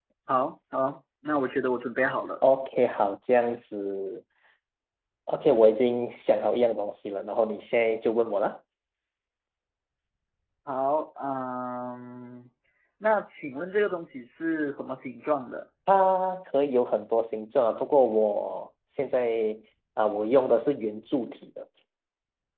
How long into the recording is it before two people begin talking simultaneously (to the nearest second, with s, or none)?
none